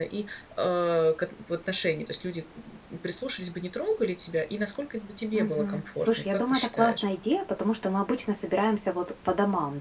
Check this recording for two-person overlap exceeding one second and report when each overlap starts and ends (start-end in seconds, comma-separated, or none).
5.3-7.0